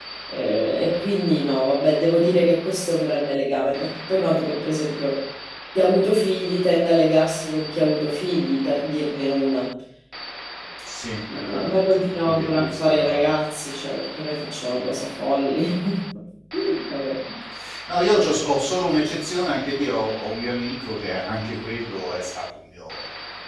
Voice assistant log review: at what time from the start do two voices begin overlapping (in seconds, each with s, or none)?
11.3 s